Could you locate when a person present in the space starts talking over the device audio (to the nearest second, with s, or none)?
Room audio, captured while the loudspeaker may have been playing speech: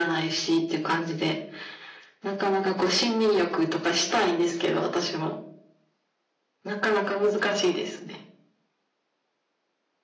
none